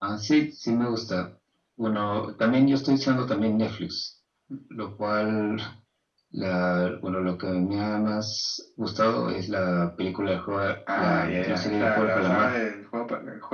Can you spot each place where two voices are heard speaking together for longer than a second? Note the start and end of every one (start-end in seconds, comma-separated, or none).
11.0-12.5